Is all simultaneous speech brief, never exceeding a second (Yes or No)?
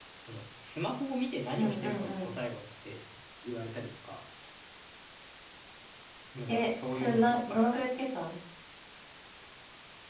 No